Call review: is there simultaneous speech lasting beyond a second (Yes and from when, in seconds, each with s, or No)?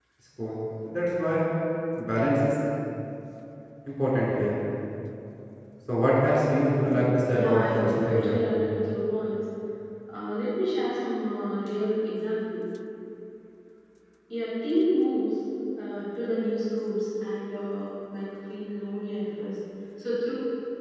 Yes, from 6.8 s